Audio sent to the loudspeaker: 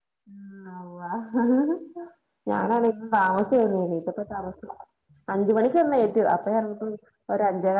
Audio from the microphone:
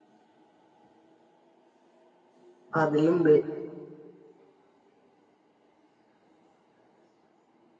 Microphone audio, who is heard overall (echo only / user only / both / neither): user only